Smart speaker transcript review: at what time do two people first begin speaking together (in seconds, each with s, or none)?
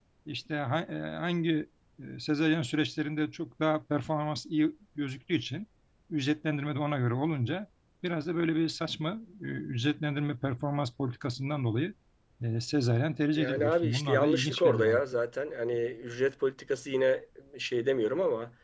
13.3 s